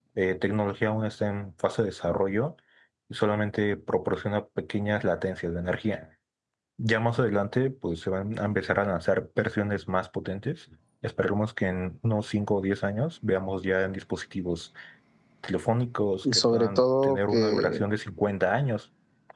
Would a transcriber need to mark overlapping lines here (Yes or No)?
Yes